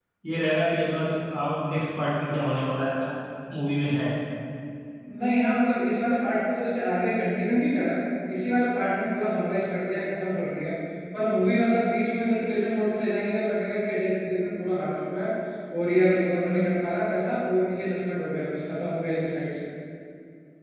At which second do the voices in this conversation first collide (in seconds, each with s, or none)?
none